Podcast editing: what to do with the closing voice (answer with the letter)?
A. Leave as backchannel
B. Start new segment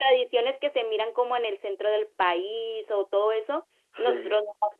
A